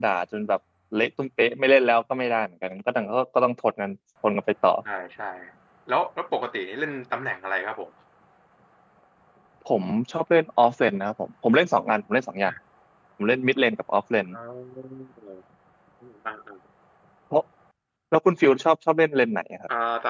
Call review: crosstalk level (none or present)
none